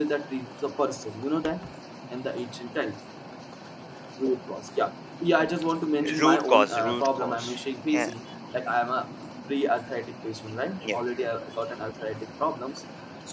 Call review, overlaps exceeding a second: present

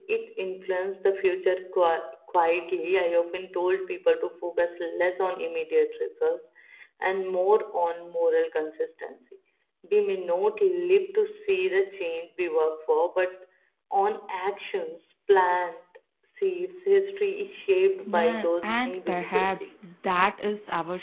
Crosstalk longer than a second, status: present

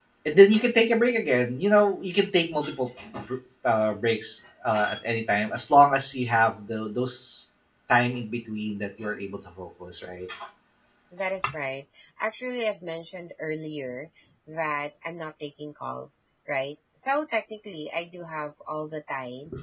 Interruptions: none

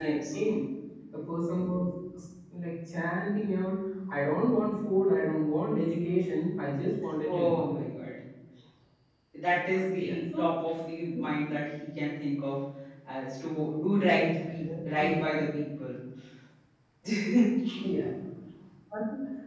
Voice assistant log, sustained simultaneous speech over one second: none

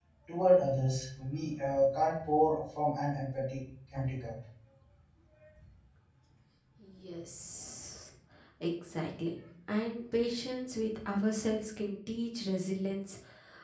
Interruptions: none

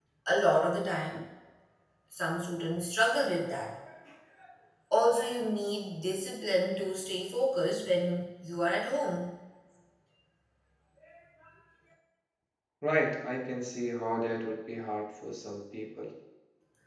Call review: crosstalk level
none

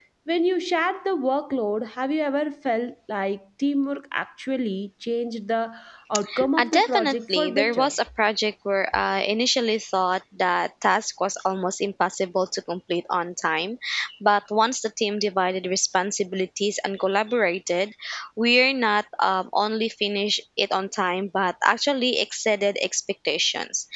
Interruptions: present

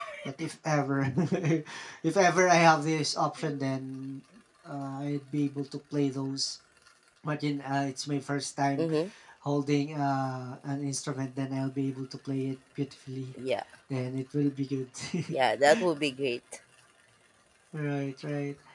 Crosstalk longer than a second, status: none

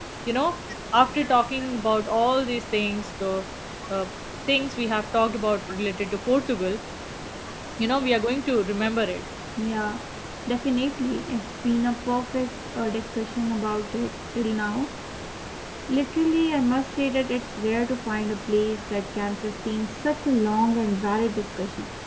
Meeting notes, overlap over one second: none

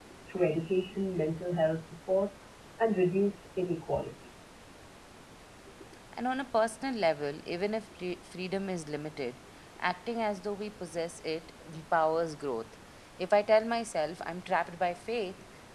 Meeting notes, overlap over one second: none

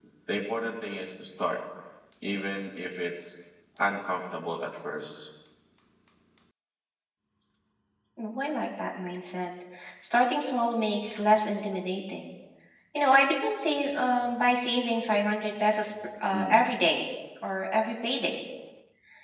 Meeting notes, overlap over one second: none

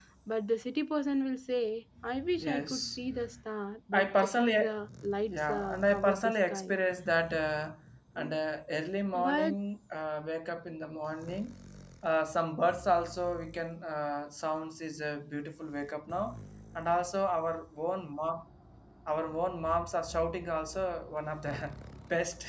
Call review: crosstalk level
present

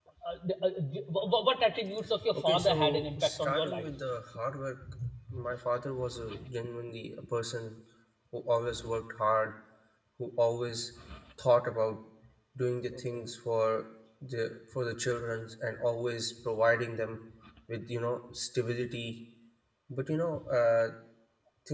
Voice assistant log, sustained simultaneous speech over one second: present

